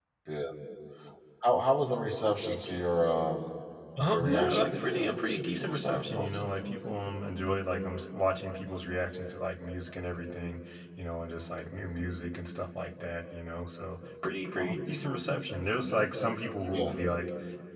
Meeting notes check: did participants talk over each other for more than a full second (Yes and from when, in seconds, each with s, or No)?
Yes, from 4.1 s